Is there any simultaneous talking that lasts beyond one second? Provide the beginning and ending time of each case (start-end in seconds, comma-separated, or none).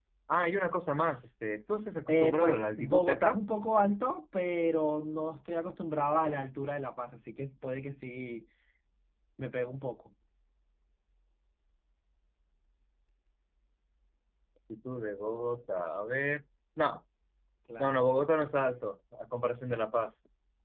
2.1-3.4